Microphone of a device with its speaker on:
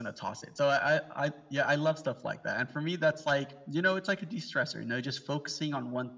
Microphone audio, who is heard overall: echo only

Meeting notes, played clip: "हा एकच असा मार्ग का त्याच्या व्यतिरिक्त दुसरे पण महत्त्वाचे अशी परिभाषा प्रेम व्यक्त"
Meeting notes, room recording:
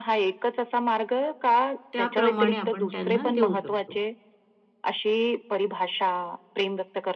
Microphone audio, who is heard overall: both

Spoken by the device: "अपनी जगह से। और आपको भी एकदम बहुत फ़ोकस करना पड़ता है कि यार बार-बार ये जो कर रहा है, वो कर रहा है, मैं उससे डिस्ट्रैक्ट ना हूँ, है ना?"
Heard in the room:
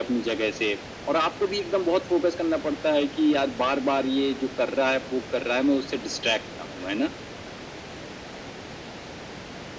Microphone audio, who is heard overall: echo only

